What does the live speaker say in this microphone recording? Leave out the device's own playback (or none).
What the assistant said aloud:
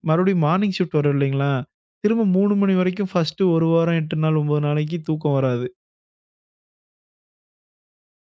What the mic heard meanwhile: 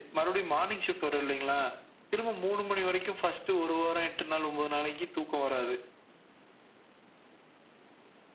none